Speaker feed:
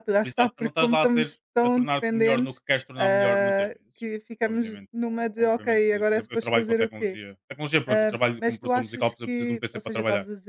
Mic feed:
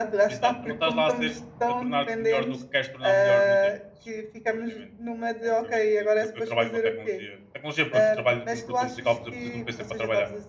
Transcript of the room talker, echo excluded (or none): none